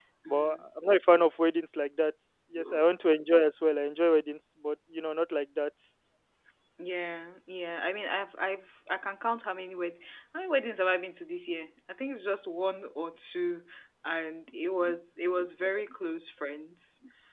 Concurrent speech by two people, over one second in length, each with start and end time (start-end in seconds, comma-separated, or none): none